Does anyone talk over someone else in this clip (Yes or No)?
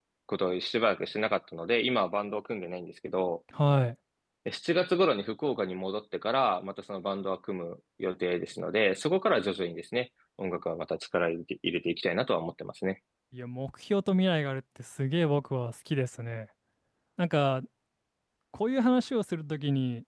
No